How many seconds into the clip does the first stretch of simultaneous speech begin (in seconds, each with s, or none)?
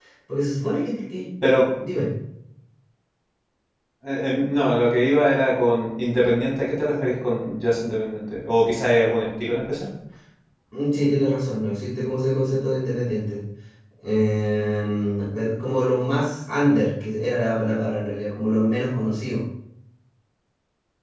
none